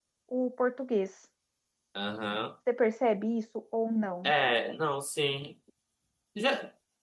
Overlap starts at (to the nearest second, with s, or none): none